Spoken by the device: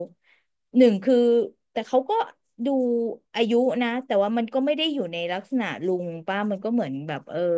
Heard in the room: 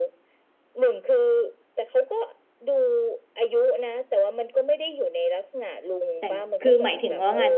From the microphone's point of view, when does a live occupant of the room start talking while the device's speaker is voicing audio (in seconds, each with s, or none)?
6.2 s